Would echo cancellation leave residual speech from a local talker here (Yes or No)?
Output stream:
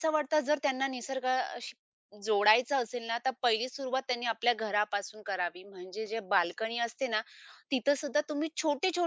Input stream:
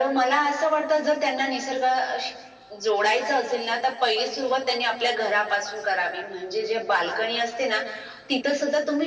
No